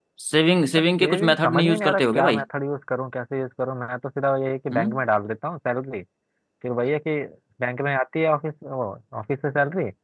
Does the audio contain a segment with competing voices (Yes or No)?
Yes